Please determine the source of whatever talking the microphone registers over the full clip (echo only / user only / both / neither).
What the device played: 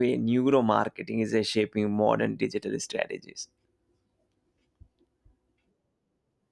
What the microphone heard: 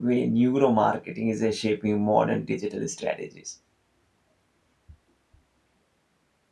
echo only